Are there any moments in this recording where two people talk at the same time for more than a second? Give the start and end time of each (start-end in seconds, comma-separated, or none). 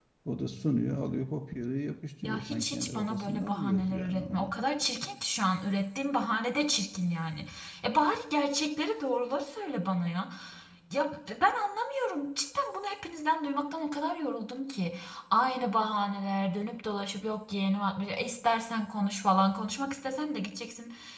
2.2-4.5